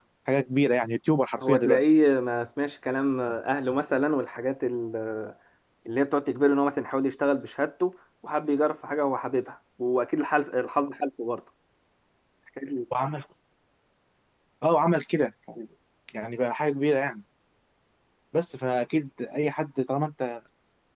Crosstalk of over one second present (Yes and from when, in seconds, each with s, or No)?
No